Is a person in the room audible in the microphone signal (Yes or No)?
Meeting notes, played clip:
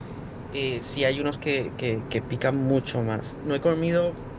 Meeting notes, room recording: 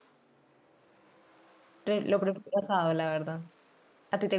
Yes